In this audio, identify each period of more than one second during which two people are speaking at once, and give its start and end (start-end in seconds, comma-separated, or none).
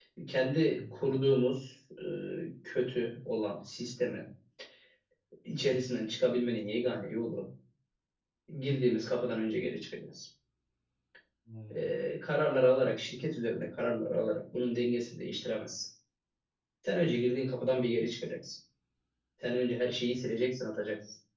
none